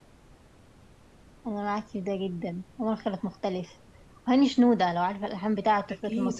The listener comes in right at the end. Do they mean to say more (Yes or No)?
Yes